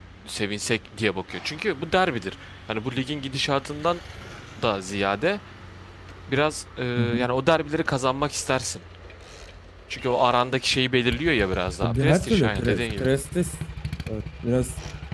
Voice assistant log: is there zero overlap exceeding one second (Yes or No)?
No